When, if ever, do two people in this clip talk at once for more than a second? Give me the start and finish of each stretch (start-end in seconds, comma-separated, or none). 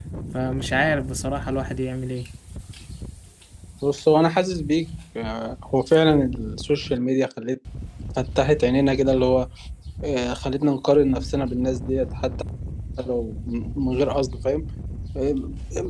none